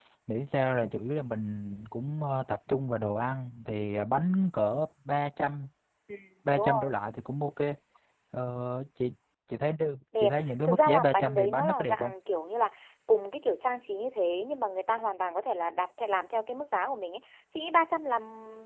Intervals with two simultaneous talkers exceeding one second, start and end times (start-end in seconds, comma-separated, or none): 10.2-12.1